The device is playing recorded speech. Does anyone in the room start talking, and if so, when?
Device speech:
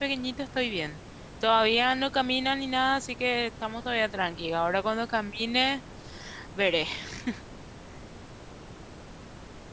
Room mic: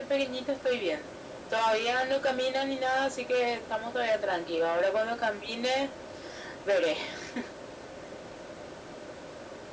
none

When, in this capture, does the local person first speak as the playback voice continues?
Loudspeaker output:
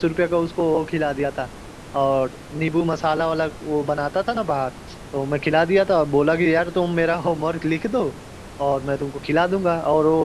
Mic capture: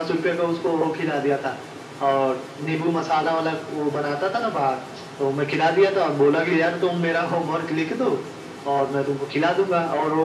none

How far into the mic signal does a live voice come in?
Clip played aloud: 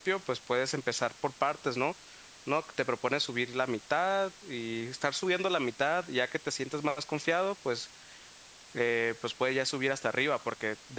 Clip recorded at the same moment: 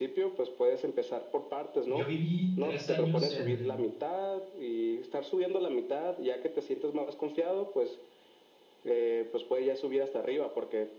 2 s

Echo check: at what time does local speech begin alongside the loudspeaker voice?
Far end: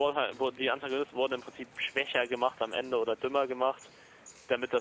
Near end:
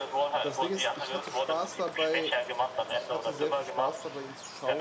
0 s

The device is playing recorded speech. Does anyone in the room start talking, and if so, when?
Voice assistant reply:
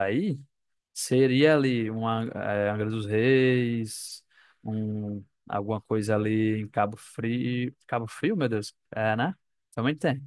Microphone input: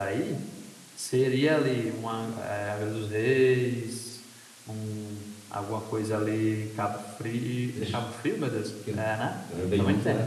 8 s

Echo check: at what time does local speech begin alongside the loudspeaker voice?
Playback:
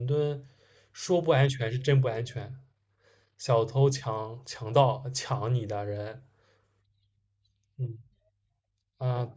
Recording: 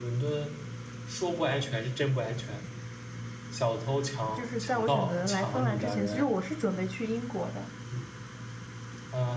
4 s

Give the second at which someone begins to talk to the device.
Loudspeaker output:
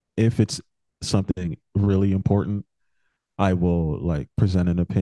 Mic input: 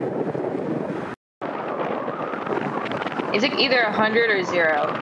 3 s

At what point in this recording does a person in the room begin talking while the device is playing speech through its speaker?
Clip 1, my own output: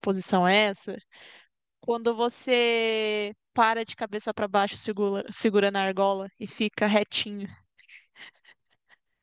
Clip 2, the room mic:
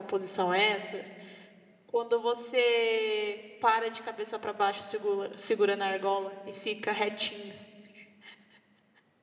none

